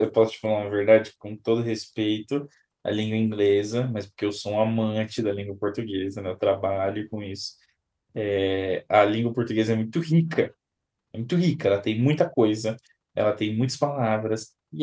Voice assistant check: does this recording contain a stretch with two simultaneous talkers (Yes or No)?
No